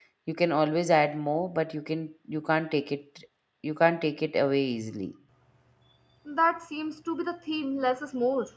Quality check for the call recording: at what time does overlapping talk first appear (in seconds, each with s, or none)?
none